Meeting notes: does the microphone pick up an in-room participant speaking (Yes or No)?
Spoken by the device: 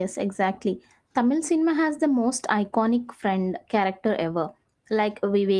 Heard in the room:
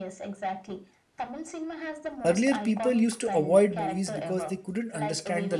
Yes